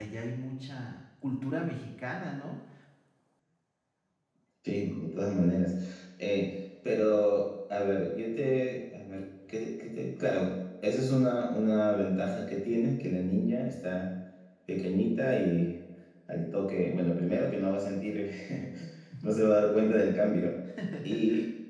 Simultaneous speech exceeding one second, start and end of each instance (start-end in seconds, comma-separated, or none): none